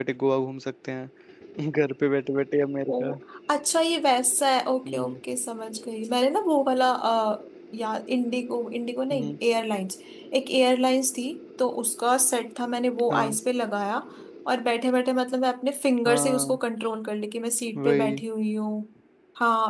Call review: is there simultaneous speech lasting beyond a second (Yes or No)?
No